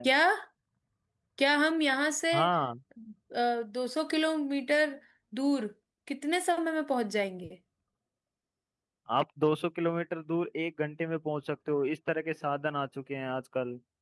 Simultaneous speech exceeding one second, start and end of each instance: none

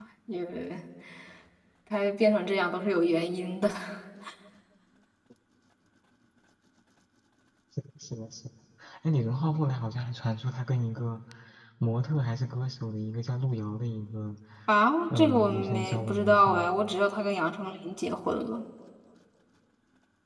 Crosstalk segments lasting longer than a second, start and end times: 15.2-16.7

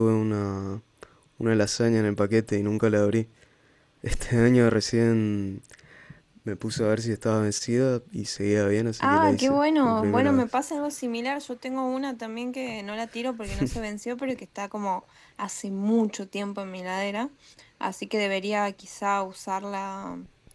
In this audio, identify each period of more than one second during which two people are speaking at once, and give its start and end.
9.0-10.6

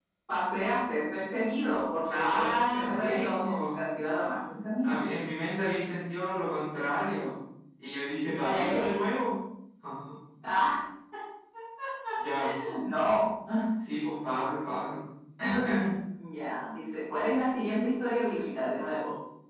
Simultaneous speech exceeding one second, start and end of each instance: 2.1-3.8

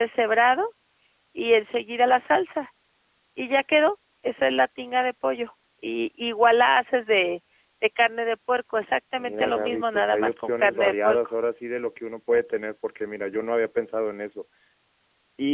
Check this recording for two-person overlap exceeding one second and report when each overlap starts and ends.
9.1-11.2

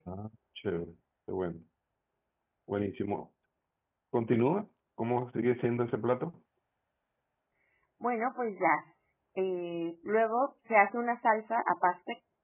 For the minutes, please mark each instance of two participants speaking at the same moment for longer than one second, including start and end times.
none

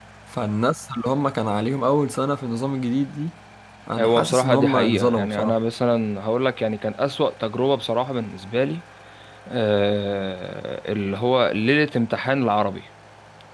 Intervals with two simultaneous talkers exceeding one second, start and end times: 4.0-5.6

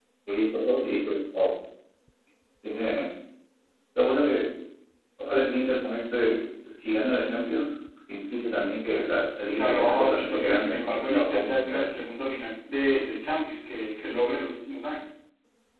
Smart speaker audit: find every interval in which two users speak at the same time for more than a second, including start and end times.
9.5-11.8

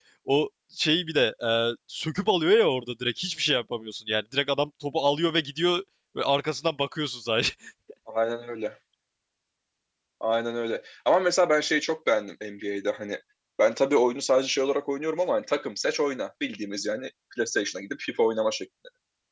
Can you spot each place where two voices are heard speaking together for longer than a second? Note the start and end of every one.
none

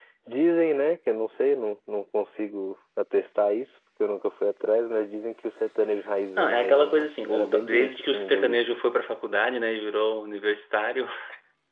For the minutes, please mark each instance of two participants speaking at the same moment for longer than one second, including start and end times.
6.4-8.6

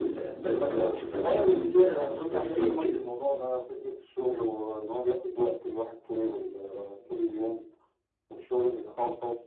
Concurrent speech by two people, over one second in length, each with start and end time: 1.1-3.0

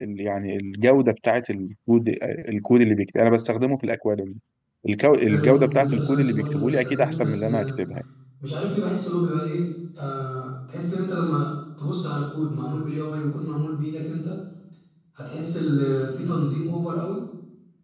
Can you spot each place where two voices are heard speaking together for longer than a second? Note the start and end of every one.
5.3-7.8

